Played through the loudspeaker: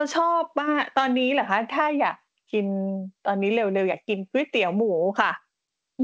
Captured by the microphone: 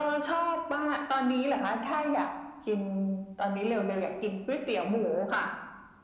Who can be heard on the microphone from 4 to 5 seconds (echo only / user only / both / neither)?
echo only